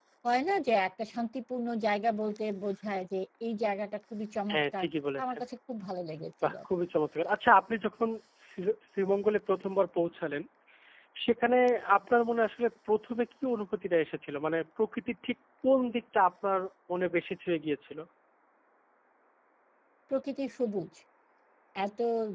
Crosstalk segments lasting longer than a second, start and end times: none

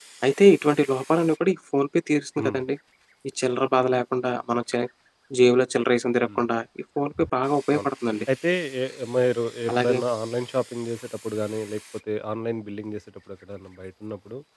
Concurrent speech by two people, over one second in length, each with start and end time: none

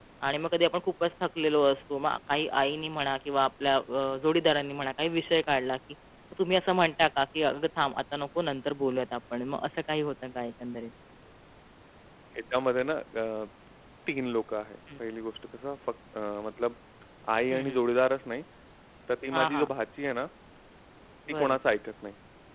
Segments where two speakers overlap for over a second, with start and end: none

